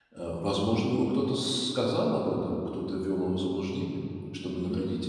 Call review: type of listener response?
taking over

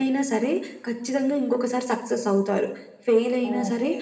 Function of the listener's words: listening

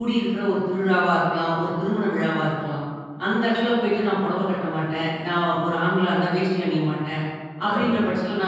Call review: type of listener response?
listening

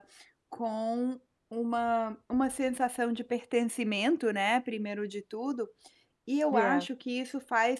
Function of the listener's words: listening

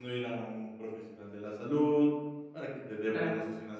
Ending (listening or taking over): listening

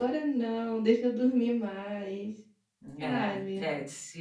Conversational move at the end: taking over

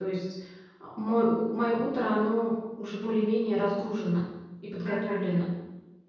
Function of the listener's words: taking over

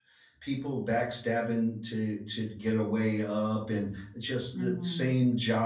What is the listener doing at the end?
listening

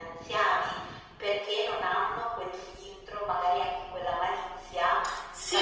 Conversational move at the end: taking over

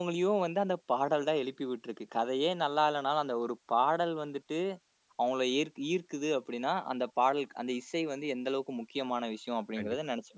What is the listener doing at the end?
taking over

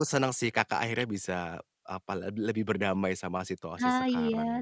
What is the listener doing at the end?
taking over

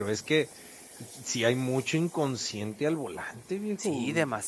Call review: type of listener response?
taking over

